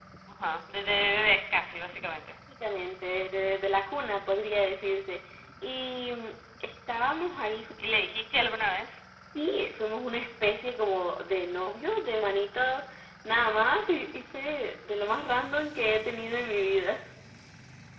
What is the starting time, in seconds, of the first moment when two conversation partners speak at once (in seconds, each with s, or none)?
none